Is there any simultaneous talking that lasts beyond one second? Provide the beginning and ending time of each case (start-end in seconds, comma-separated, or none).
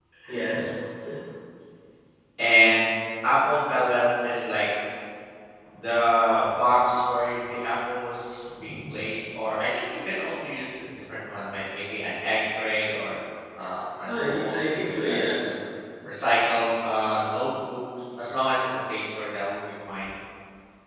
none